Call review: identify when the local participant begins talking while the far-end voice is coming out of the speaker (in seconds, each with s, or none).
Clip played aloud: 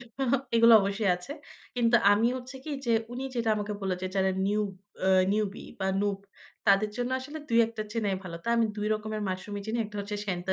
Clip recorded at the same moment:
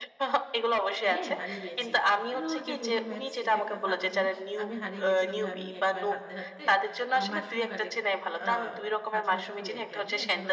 1.1 s